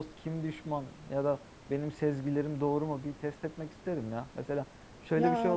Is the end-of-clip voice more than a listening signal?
No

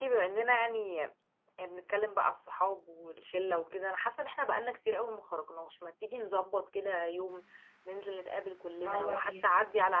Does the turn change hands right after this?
No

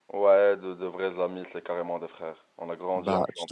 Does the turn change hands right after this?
Yes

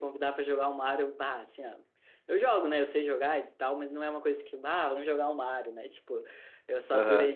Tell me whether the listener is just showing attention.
Yes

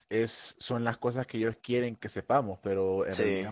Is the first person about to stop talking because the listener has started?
No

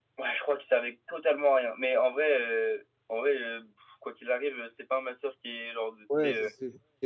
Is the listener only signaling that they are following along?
No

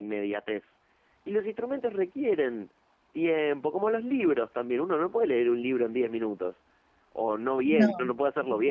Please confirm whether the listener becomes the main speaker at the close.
No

